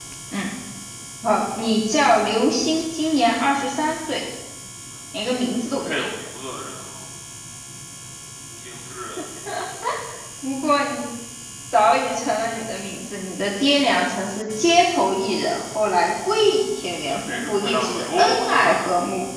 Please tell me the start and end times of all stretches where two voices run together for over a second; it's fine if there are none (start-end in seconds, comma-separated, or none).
17.1-18.8